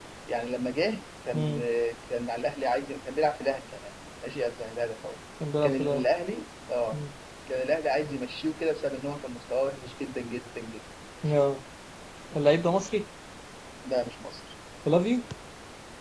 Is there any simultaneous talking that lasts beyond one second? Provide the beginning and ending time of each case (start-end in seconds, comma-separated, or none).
none